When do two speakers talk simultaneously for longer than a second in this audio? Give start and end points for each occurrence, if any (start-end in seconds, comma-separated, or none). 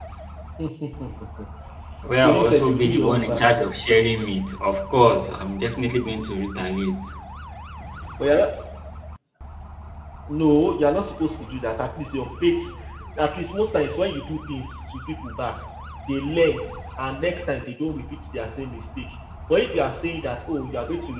2.2-3.4